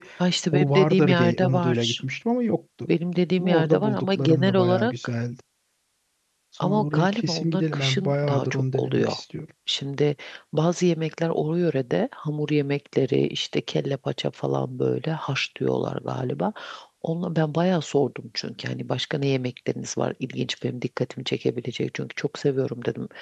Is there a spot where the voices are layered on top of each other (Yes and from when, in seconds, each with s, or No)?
Yes, from 0.5 s